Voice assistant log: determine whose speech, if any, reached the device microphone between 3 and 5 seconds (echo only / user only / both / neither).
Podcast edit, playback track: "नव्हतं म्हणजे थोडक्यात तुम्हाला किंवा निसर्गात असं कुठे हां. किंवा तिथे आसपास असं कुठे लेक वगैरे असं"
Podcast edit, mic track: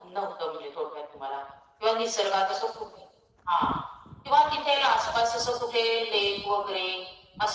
echo only